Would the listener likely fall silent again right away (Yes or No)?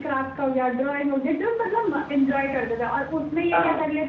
Yes